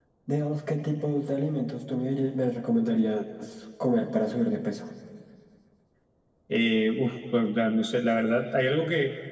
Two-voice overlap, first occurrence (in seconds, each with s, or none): none